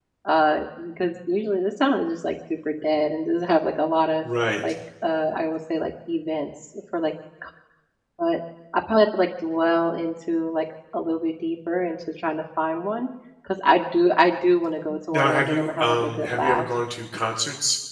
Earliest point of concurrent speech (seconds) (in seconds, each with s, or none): 15.1 s